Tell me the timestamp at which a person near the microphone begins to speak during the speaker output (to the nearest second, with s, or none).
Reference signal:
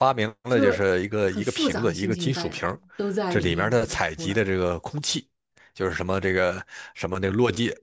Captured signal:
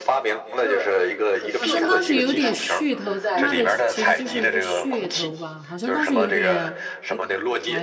2 s